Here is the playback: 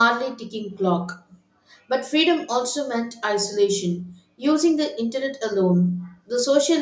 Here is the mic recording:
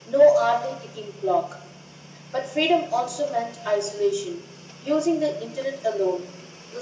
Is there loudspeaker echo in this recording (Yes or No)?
Yes